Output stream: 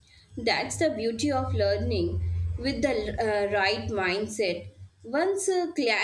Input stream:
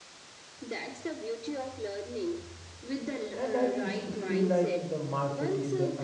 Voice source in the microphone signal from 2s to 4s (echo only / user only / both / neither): both